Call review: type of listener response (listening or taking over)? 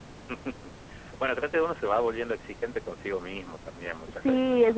taking over